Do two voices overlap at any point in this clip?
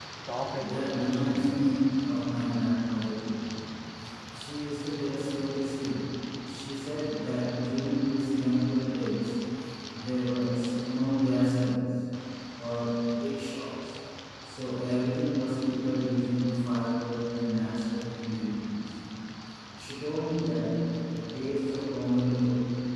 Yes, from 0.6 s

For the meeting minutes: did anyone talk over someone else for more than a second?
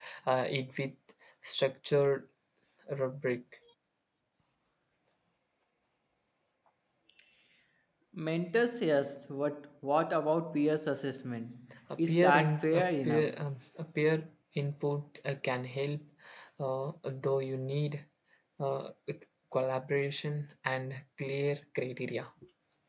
Yes, from 12.1 s

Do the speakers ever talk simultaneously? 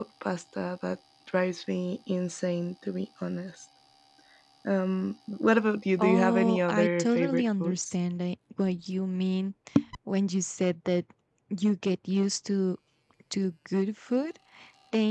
Yes, from 6.0 s

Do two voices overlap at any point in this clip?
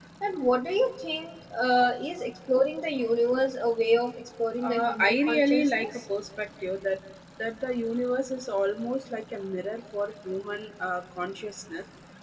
Yes, from 4.6 s

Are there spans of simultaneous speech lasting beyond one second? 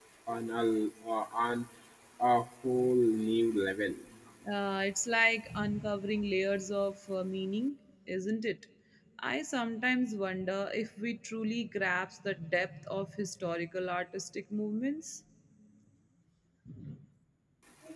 No

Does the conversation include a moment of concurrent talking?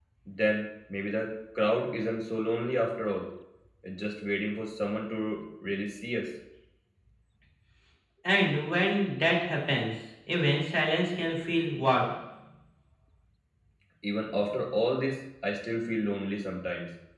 No

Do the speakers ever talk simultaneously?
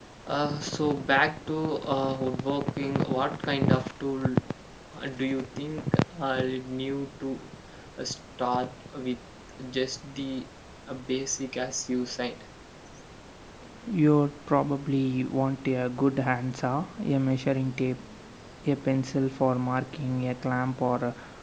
No

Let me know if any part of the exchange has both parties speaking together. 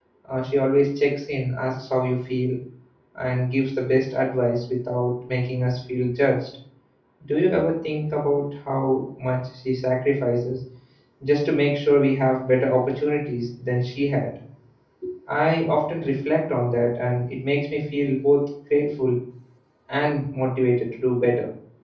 No

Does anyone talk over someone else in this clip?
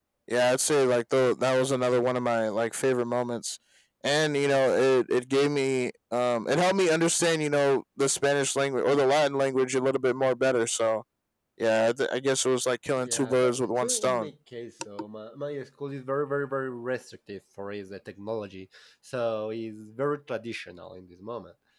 Yes, from 13.0 s

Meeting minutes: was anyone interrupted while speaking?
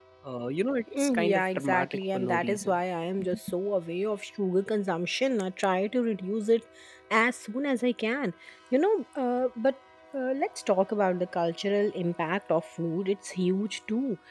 Yes, from 1.0 s

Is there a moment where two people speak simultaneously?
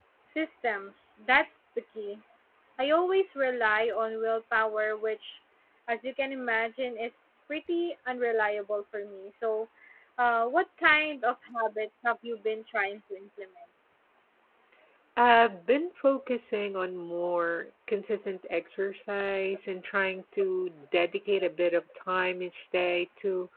No

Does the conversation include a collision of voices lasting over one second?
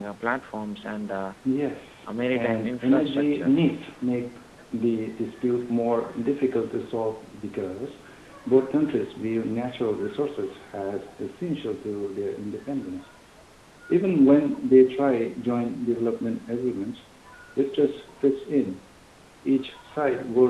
Yes, from 2.3 s

